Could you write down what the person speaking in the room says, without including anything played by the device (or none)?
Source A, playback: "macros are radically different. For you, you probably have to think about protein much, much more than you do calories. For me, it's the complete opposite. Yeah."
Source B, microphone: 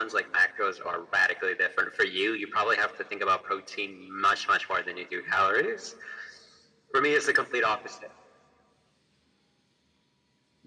none